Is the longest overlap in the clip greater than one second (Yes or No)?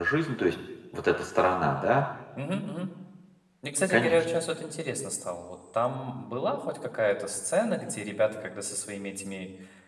No